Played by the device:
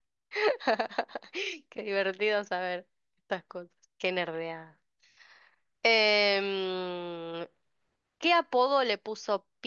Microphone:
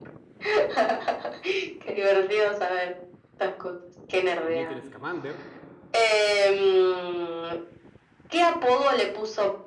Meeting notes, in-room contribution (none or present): present